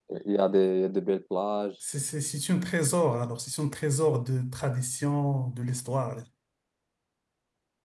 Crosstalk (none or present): none